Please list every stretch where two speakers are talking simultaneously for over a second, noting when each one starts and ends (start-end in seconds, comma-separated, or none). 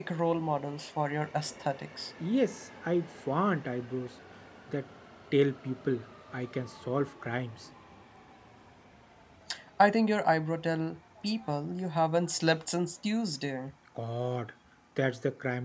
none